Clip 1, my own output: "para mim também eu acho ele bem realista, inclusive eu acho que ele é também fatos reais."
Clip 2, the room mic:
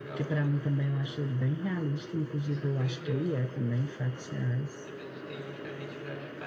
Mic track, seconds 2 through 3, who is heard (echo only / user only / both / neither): both